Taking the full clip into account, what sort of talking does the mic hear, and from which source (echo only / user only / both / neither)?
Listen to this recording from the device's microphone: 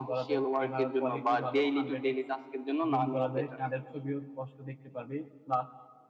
both